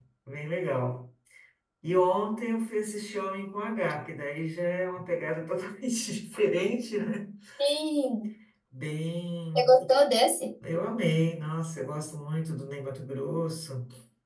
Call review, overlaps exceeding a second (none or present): none